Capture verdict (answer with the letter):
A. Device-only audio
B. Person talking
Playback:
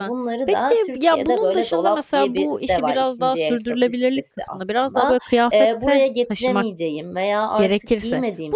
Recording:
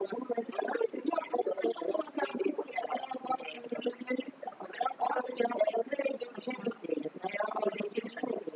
A